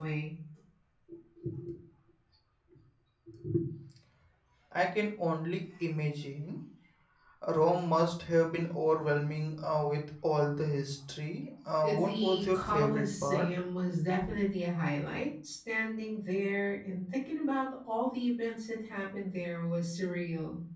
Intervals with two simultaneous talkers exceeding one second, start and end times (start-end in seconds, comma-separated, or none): 11.8-13.5